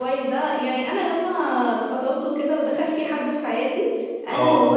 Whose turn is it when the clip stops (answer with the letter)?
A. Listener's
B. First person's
B